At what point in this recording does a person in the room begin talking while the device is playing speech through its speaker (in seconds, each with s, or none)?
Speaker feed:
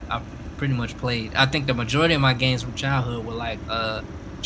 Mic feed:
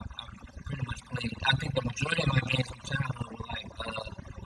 none